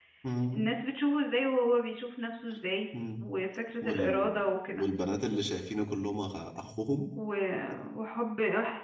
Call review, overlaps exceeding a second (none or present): none